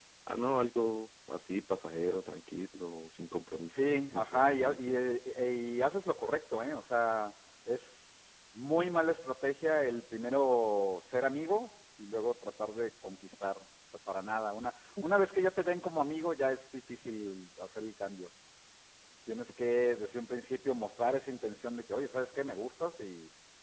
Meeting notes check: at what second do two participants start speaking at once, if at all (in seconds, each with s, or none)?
3.6 s